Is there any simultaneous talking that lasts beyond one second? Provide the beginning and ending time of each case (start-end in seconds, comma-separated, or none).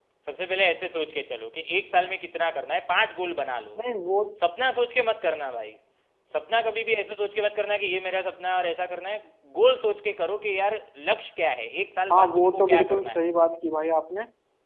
12.1-13.3